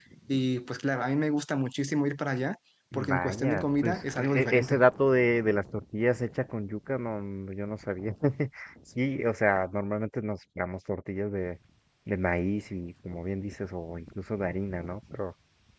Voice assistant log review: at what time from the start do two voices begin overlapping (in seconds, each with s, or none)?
2.9 s